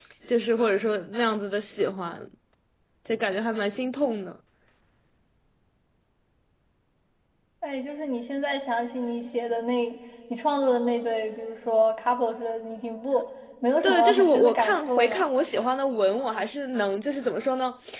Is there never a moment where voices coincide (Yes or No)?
No